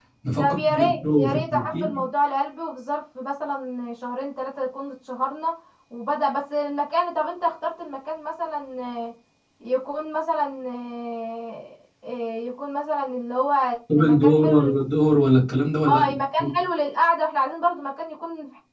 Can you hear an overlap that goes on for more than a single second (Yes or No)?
Yes